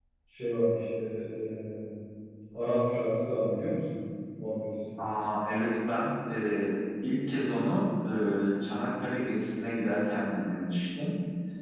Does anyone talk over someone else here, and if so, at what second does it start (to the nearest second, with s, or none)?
none